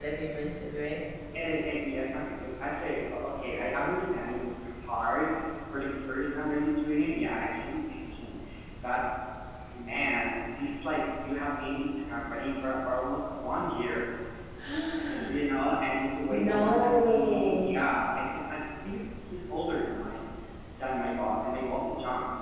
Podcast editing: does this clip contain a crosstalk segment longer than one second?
Yes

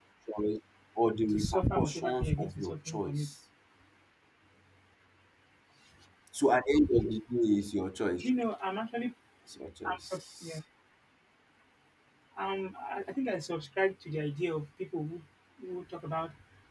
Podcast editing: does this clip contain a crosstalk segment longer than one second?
Yes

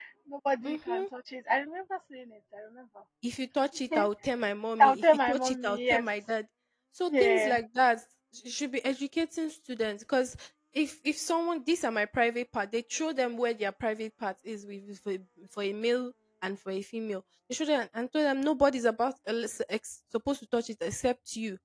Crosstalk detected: Yes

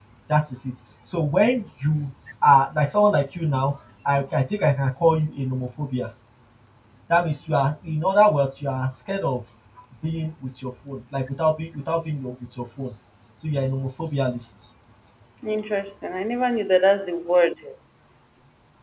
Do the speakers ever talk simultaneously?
No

